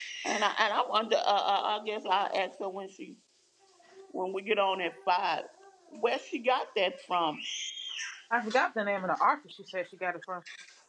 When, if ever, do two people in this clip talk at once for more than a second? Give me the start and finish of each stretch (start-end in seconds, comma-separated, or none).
none